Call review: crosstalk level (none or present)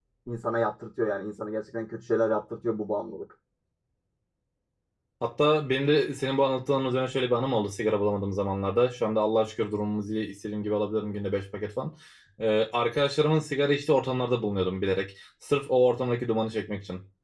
none